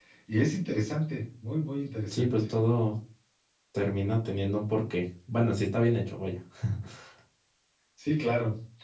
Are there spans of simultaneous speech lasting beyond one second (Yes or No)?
No